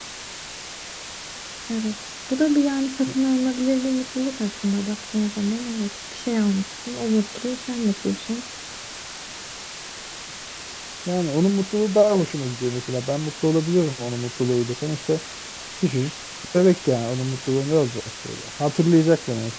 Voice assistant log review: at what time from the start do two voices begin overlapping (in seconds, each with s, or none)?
none